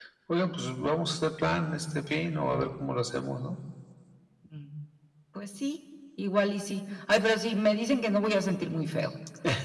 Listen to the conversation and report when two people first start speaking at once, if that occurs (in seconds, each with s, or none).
none